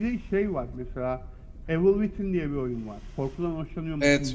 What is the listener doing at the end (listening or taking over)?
taking over